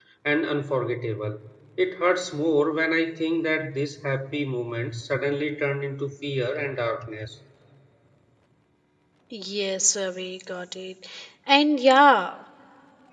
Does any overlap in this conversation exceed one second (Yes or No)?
No